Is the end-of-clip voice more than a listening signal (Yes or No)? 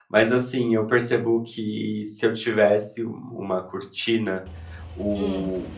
No